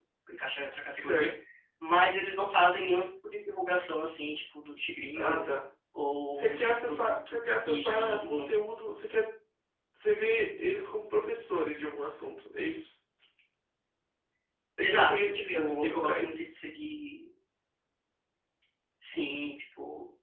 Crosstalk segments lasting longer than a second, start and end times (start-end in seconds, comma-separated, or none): 6.3-8.4, 14.8-16.4